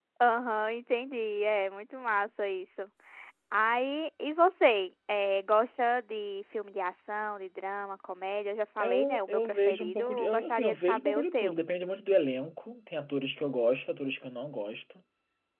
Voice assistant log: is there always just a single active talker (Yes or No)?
No